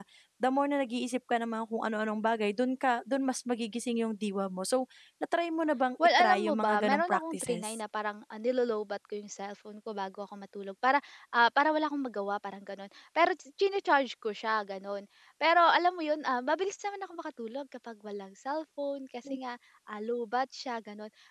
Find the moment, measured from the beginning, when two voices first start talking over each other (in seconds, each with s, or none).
6.0 s